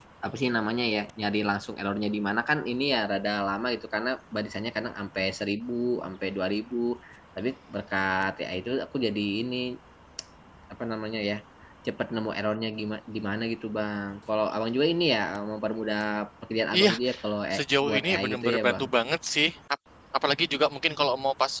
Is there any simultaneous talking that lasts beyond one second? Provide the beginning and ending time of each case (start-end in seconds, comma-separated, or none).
17.6-18.9